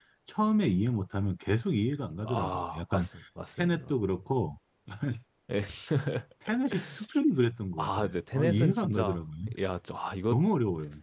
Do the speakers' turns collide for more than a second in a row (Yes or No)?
Yes